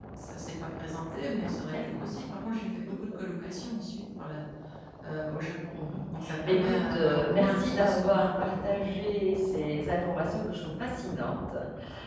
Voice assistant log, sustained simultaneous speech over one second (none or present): present